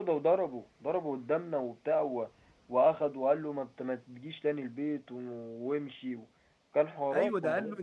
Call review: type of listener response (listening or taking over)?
taking over